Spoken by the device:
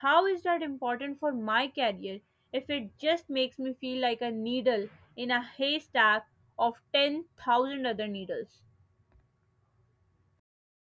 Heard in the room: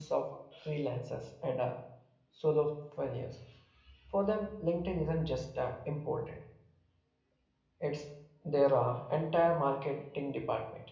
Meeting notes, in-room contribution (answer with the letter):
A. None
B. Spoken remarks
B